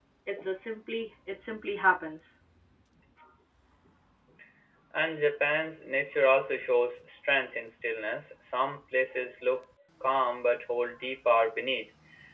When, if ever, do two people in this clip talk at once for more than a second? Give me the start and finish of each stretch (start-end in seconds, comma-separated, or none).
none